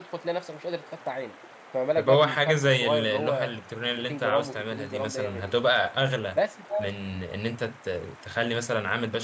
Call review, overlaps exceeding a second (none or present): present